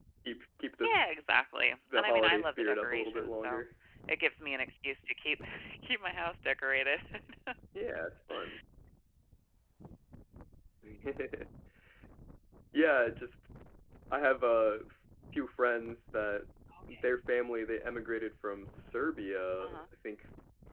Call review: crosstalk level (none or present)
present